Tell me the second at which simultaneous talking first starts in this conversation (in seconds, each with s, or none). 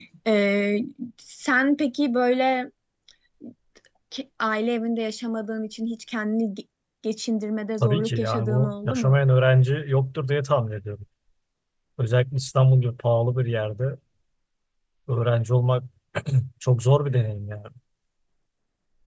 7.8 s